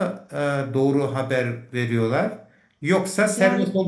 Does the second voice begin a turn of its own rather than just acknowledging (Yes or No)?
No